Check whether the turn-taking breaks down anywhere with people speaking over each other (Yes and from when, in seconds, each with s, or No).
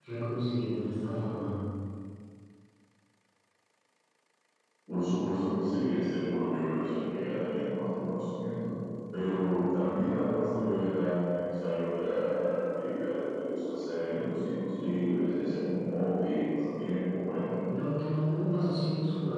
No